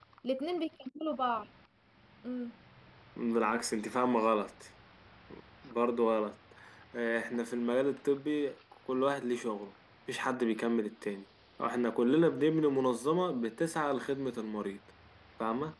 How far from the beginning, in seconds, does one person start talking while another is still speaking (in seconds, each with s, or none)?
none